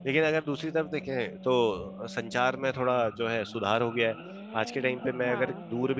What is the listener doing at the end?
listening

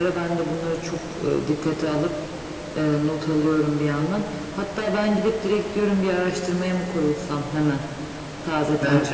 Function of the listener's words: taking over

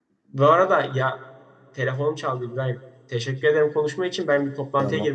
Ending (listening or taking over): listening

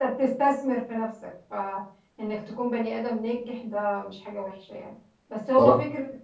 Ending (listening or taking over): listening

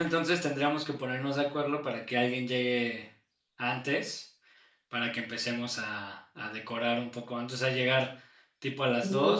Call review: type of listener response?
listening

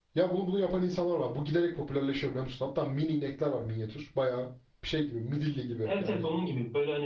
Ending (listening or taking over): taking over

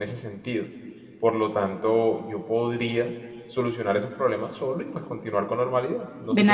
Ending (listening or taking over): taking over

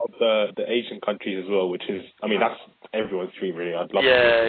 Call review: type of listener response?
taking over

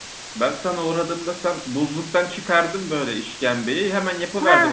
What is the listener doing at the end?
taking over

